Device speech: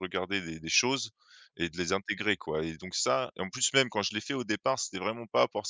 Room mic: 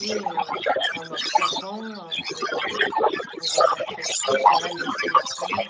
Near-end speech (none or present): present